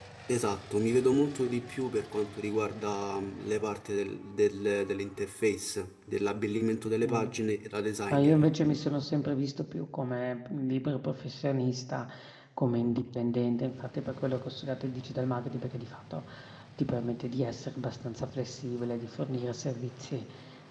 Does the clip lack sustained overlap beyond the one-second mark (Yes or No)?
Yes